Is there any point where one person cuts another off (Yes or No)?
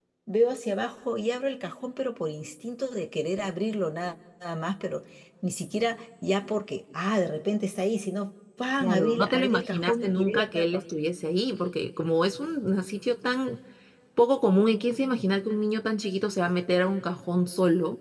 Yes